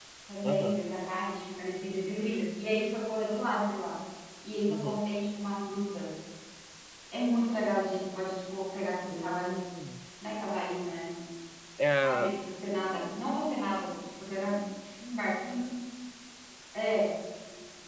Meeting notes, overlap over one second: none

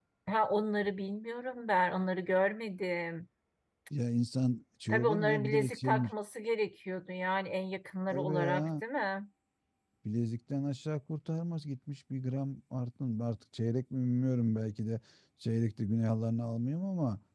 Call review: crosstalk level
present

